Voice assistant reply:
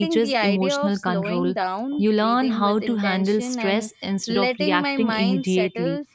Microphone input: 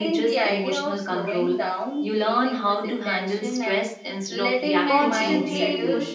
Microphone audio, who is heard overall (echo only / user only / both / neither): both